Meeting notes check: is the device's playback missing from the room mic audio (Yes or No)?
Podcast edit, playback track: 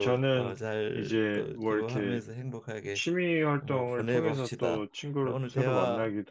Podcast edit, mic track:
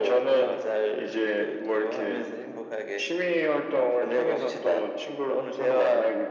No